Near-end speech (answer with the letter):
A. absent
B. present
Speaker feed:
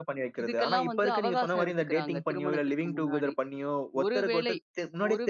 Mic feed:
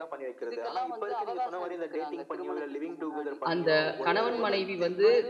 B